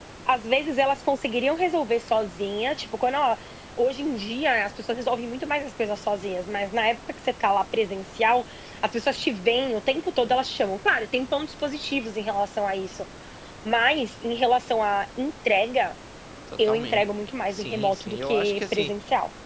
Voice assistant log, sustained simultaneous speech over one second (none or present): present